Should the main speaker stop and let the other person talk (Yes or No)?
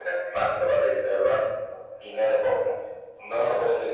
No